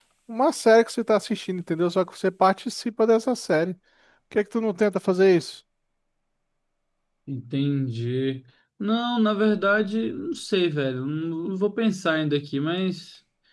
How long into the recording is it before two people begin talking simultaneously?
none

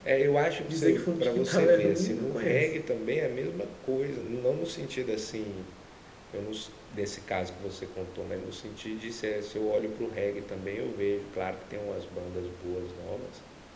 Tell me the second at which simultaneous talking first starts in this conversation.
0.7 s

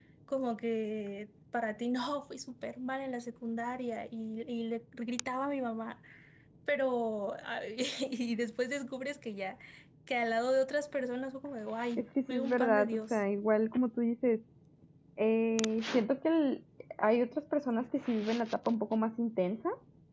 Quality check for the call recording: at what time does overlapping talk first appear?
11.8 s

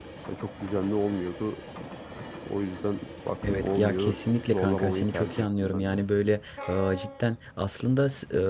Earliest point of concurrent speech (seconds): 3.4 s

